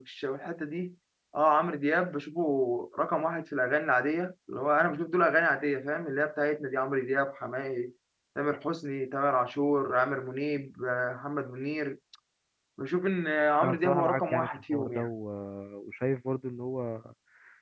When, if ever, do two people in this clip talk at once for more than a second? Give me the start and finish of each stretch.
13.6-15.1

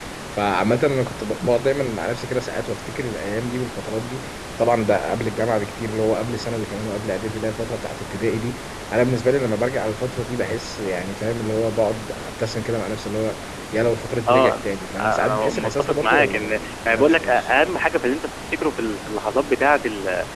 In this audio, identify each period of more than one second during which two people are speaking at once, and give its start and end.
15.0-17.5

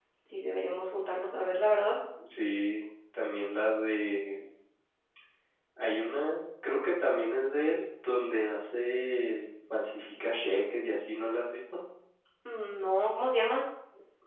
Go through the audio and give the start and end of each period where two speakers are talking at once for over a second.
none

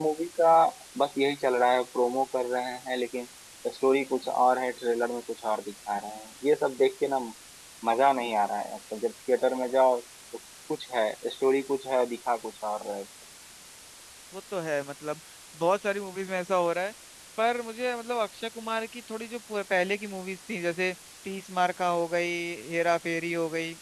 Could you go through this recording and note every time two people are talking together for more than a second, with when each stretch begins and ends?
none

